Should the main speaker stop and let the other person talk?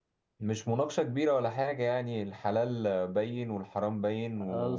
Yes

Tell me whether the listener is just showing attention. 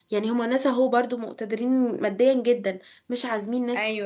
Yes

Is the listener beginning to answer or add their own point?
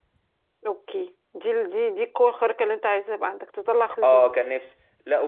Yes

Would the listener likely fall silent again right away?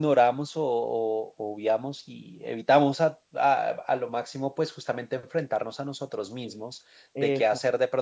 Yes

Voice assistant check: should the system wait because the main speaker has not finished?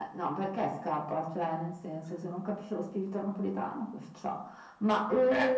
Yes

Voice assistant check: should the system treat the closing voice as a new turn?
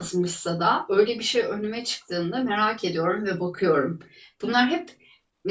No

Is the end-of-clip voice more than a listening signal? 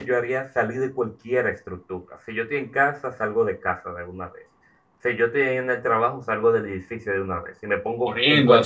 Yes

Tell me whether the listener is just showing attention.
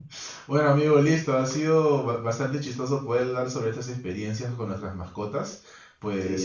Yes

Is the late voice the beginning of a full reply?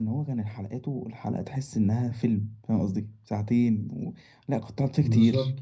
No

